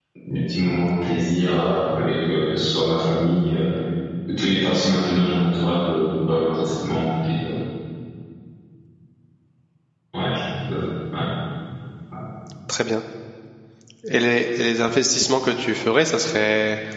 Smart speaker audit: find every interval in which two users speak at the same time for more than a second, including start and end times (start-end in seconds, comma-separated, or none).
none